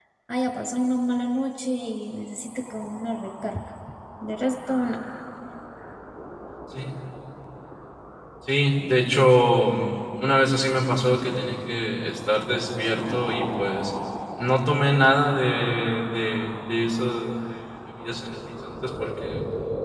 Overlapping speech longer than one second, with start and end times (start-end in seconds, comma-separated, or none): none